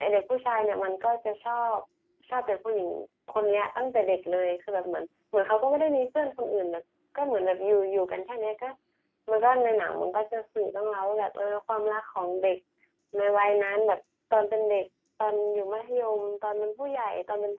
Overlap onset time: none

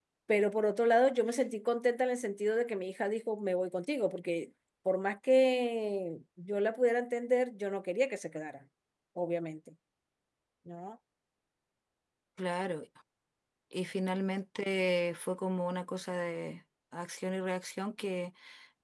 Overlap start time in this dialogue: none

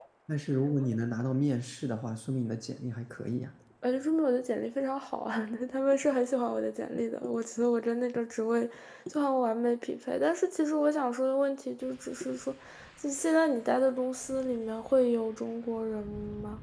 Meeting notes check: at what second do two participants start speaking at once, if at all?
none

